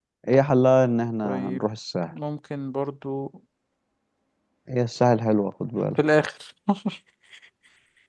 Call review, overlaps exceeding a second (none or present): none